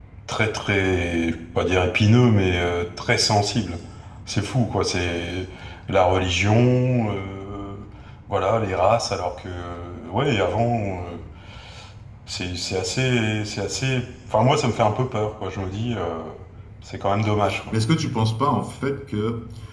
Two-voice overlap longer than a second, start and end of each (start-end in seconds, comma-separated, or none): none